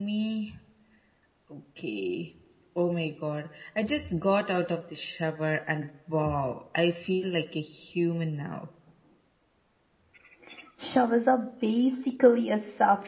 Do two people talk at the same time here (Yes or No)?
No